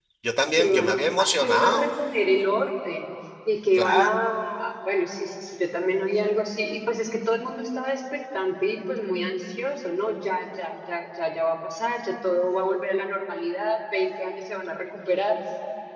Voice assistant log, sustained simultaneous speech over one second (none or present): present